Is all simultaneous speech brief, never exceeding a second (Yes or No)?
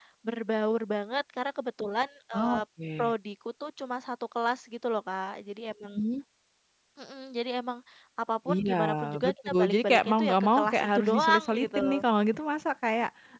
No